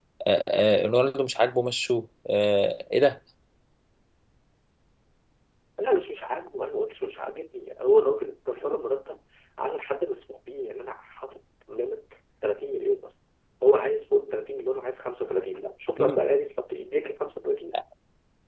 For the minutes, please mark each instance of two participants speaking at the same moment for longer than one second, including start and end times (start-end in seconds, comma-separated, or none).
none